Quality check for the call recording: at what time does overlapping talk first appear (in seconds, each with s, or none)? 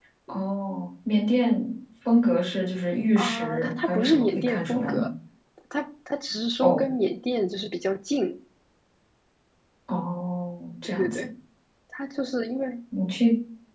3.2 s